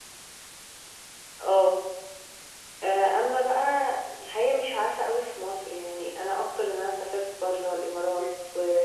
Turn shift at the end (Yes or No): No